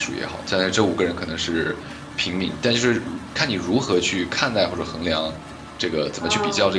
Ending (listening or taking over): taking over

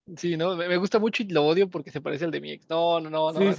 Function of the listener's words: taking over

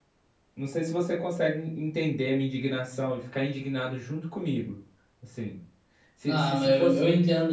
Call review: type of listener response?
taking over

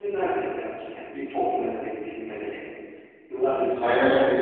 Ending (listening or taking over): taking over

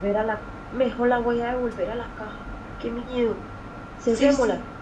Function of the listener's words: taking over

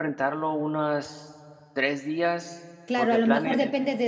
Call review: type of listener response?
taking over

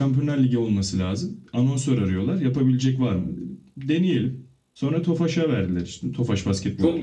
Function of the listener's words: taking over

